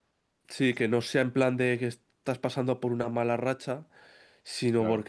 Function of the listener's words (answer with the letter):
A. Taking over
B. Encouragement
B